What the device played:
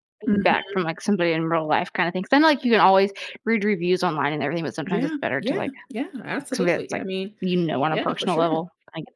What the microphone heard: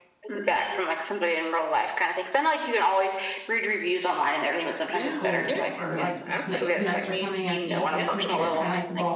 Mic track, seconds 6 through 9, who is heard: both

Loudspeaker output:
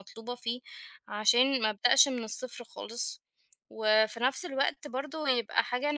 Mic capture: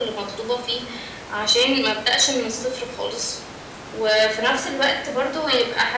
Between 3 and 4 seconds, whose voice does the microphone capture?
echo only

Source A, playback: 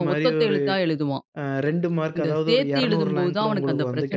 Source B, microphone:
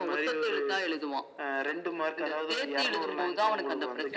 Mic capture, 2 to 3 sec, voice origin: echo only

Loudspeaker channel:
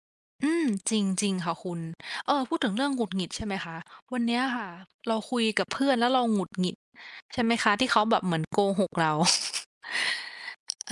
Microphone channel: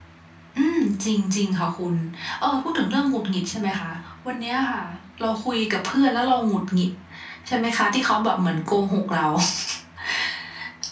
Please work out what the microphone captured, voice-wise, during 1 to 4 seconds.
echo only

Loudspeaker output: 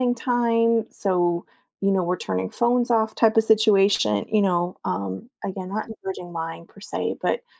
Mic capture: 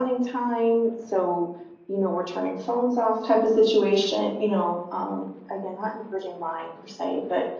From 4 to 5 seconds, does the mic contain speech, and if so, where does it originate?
echo only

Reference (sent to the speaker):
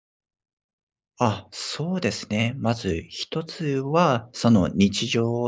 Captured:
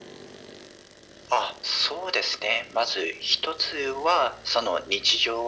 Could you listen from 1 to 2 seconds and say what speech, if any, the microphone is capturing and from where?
echo only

